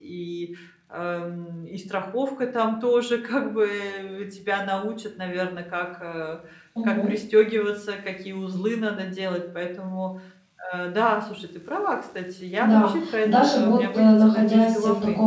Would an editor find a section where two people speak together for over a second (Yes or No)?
Yes